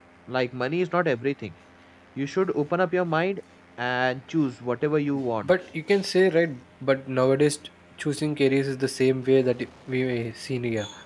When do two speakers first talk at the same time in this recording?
none

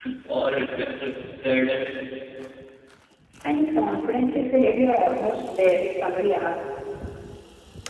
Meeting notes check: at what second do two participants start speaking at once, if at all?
none

